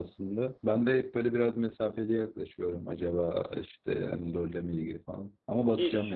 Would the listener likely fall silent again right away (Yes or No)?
No